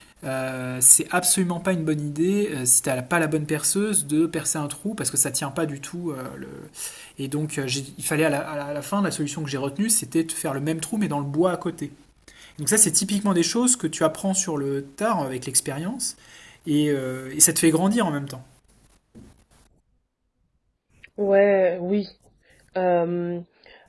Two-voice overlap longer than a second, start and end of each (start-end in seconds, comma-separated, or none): none